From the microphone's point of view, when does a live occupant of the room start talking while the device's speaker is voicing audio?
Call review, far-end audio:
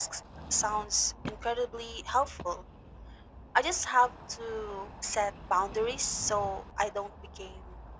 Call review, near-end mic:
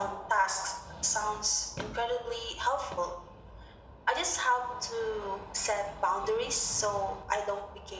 none

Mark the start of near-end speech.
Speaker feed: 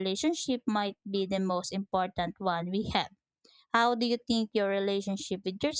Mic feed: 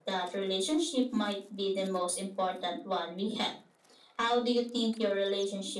none

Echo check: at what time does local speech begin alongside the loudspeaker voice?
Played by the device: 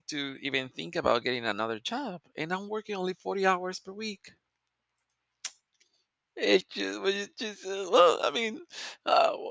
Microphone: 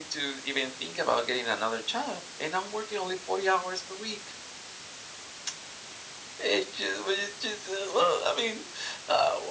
none

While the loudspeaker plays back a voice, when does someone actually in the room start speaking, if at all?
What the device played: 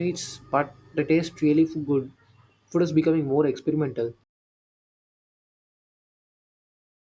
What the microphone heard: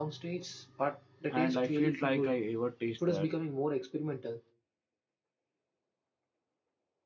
1.3 s

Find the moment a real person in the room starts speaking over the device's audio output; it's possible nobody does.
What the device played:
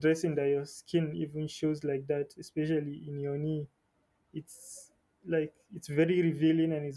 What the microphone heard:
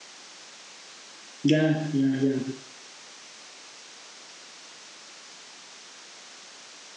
1.4 s

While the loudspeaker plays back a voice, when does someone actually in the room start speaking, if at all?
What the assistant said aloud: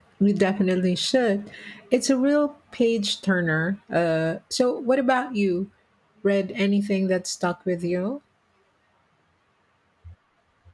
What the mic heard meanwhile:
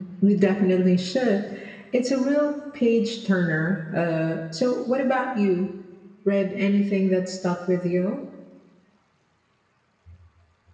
none

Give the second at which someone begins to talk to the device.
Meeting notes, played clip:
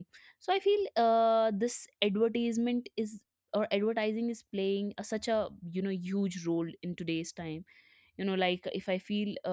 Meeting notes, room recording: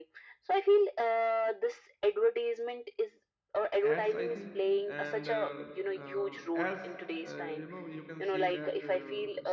3.9 s

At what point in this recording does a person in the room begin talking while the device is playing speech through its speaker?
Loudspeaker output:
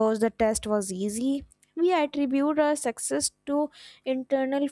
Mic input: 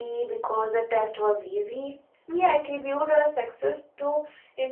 none

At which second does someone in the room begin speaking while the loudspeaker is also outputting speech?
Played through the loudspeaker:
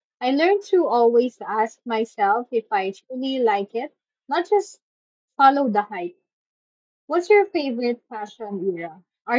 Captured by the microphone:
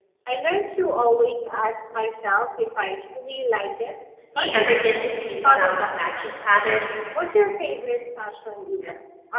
4.3 s

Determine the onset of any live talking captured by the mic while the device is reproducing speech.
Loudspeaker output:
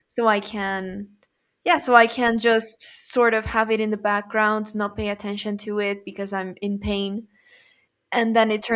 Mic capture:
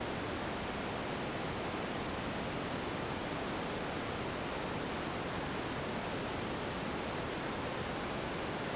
none

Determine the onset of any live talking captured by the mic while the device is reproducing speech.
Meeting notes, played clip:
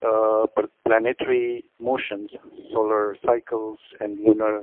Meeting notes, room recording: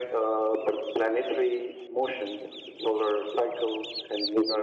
none

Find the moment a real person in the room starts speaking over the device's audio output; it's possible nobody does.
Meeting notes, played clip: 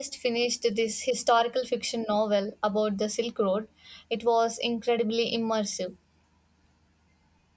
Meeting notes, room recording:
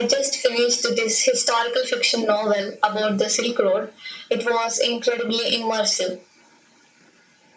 none

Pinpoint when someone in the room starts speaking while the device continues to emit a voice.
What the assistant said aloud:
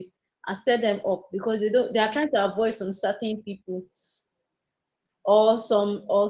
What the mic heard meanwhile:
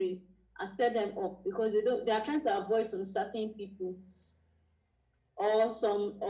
none

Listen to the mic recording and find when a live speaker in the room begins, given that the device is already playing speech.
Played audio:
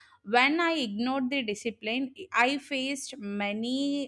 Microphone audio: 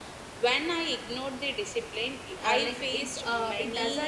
2.4 s

